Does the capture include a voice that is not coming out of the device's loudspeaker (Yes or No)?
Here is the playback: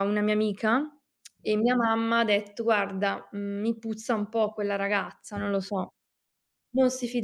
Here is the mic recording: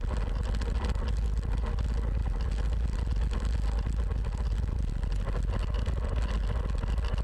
No